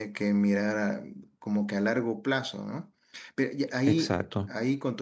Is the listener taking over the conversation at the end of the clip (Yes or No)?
No